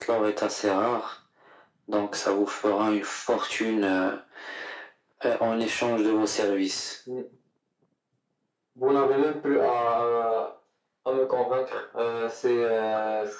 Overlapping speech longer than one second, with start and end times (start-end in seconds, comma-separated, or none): none